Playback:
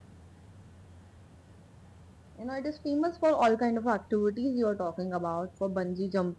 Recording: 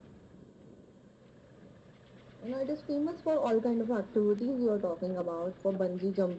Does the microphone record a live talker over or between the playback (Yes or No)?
No